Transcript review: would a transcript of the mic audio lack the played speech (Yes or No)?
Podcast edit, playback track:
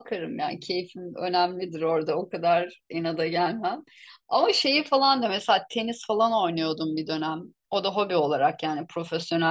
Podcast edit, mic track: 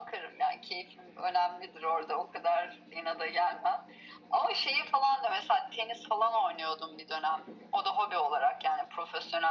No